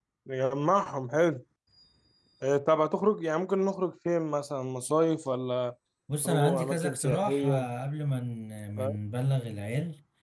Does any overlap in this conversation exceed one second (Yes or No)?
Yes